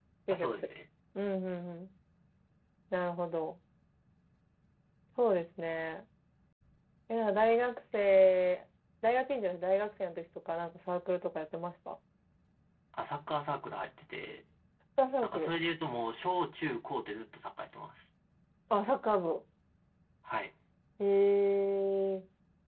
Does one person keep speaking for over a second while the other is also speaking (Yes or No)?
No